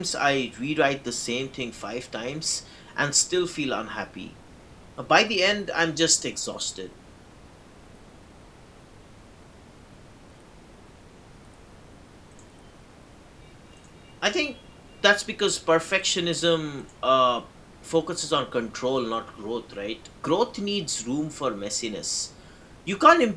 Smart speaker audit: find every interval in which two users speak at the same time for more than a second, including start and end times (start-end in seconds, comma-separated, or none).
none